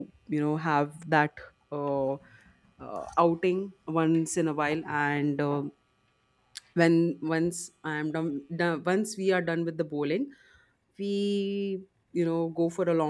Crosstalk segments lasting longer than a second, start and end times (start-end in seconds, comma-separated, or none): none